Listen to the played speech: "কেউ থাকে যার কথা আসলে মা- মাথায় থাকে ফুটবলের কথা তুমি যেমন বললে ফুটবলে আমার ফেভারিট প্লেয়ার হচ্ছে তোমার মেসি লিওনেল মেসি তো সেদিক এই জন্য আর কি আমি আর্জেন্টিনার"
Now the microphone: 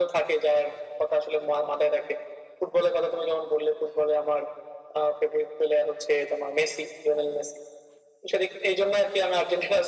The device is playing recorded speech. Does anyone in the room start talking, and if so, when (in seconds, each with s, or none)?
none